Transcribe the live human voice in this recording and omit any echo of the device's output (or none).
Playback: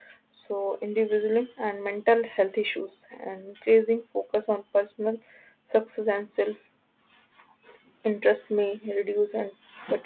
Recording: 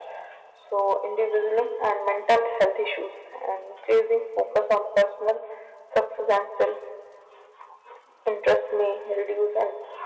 none